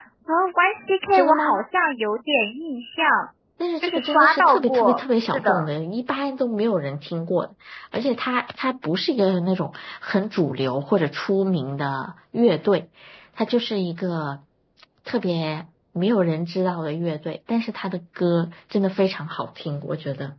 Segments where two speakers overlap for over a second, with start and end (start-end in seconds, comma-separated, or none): 3.8-5.7